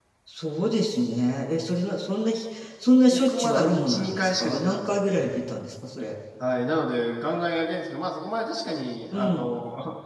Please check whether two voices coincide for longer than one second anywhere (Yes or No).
Yes